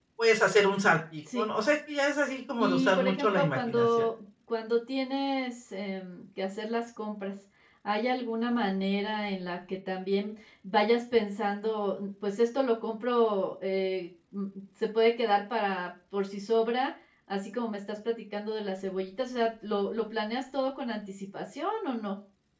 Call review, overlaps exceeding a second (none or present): present